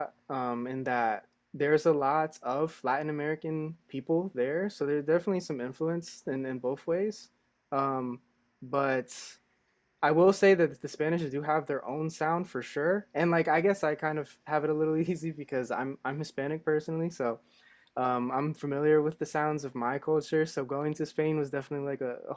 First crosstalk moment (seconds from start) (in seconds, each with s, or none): none